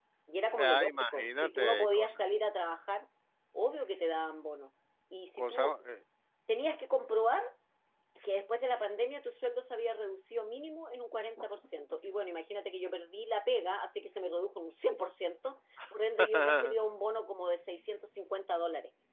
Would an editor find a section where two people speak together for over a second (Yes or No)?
Yes